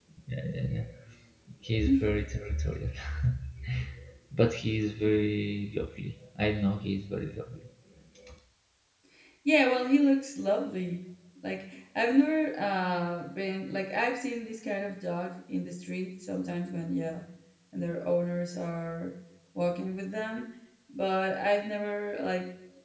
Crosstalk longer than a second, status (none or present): none